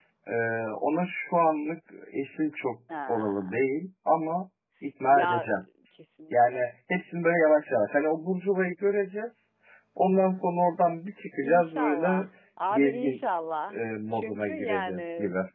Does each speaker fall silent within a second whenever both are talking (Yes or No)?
No